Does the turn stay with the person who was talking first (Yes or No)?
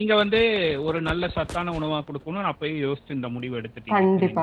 No